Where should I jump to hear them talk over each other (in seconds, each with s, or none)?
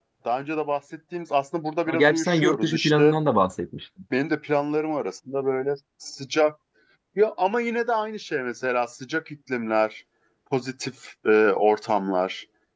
1.9 s